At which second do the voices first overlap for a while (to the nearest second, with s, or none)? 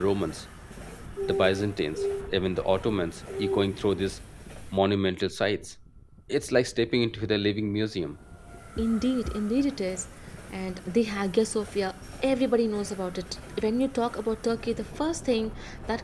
none